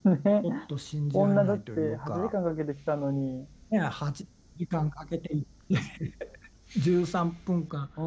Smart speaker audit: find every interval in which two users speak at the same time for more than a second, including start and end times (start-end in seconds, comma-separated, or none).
1.1-2.3